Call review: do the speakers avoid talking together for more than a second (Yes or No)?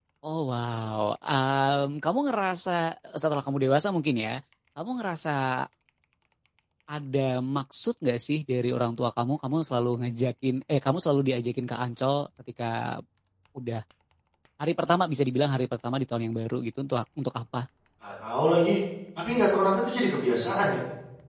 Yes